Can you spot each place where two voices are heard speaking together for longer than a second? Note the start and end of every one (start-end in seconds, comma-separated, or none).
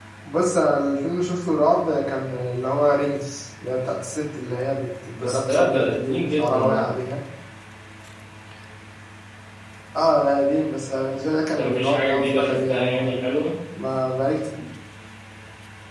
5.2-6.8, 11.6-13.2